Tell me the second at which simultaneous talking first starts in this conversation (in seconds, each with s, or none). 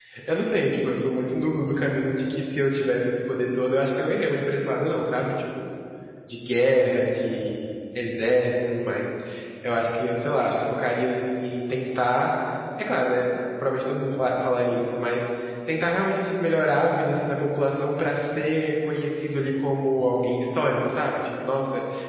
none